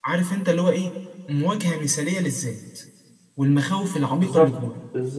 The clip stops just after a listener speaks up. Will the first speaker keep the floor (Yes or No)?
No